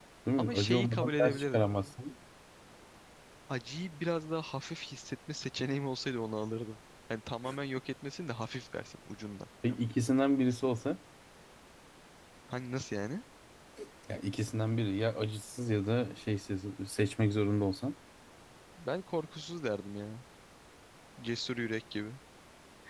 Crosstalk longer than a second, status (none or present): present